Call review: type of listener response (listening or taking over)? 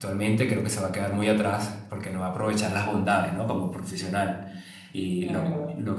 taking over